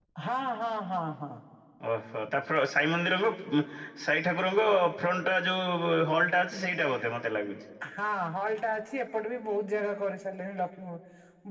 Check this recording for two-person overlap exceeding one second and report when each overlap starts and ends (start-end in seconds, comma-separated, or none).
none